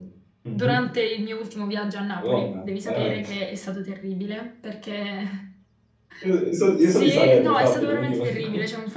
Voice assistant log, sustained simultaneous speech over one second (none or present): present